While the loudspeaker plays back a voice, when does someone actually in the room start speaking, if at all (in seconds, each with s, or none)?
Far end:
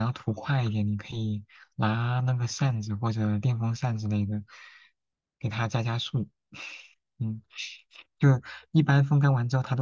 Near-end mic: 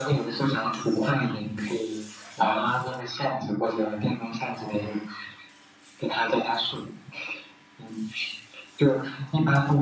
none